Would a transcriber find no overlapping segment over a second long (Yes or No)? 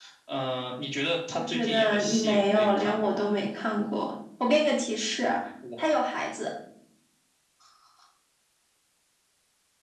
No